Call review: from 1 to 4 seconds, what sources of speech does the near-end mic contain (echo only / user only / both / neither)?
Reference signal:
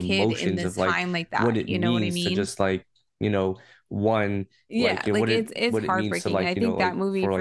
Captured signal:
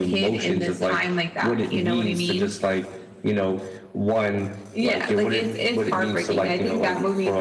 echo only